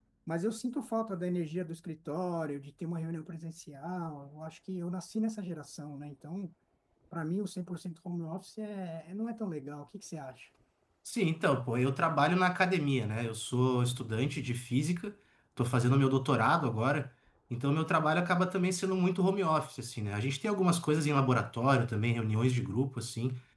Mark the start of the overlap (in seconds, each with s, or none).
none